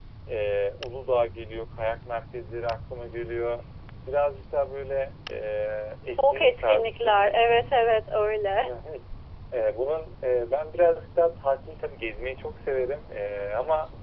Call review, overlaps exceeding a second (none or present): present